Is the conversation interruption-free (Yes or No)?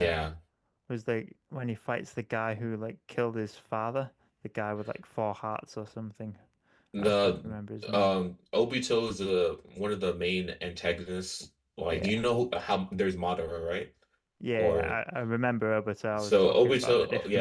No